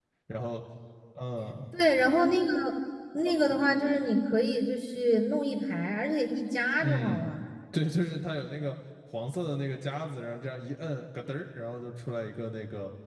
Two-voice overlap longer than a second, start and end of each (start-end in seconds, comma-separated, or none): none